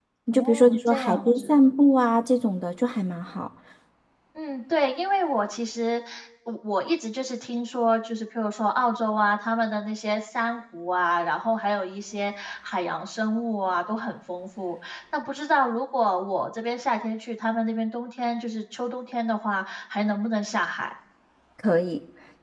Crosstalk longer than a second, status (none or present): present